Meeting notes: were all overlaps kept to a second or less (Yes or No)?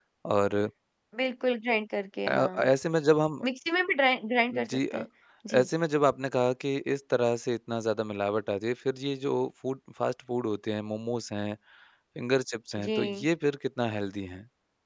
Yes